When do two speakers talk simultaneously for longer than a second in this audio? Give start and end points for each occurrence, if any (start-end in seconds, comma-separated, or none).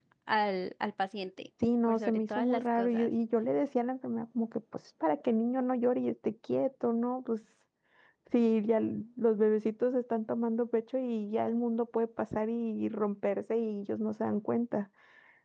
1.9-3.1